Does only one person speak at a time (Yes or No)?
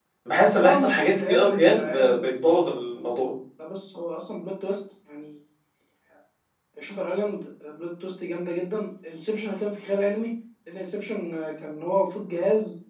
No